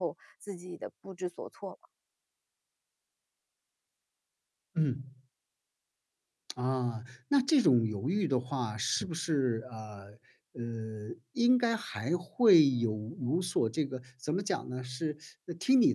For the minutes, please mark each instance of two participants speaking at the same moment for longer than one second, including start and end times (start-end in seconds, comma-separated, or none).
none